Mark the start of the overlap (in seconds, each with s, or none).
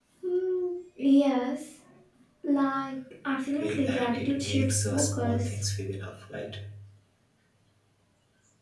3.5 s